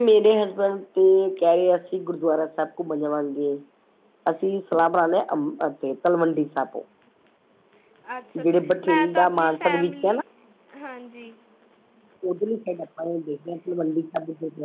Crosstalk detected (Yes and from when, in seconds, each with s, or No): Yes, from 8.4 s